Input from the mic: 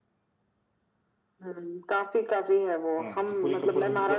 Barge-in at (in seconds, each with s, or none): 3.0 s